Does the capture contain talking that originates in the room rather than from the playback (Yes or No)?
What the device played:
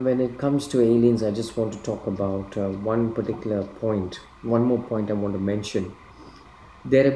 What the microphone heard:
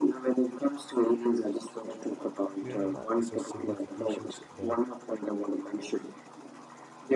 Yes